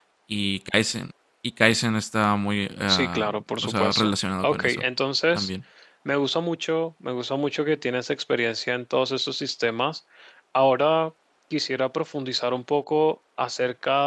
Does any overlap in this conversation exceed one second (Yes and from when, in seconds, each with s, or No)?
Yes, from 2.9 s